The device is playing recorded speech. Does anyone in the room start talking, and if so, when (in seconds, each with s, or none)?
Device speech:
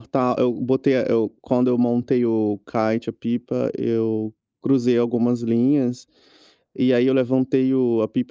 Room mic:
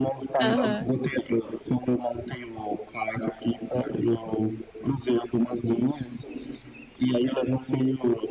0.4 s